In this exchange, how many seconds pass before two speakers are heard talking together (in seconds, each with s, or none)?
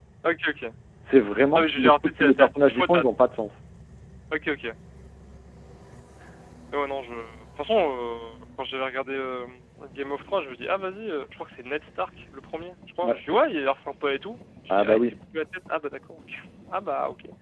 1.5 s